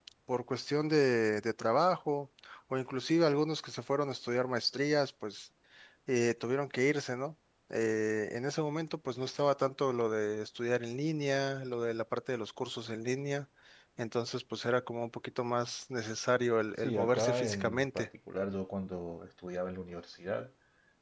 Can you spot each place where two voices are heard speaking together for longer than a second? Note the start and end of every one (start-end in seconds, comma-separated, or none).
16.8-18.1